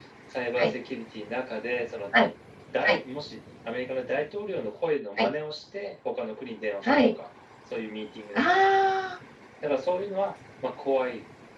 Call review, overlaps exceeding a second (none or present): none